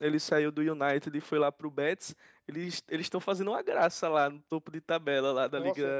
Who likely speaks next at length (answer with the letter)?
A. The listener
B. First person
A